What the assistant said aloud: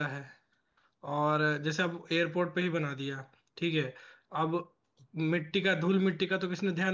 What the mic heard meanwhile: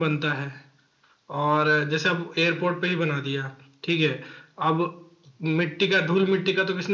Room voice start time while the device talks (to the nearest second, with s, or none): none